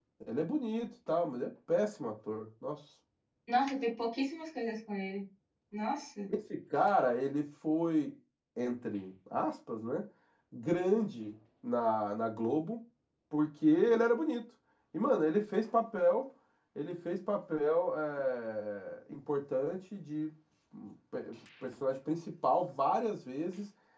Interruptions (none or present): none